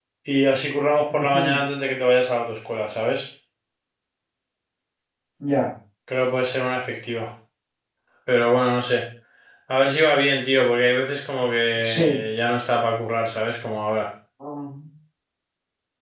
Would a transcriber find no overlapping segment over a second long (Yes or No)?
Yes